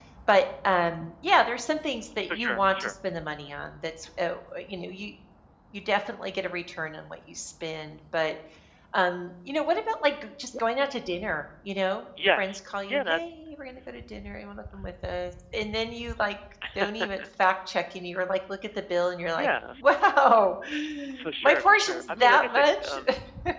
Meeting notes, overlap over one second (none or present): present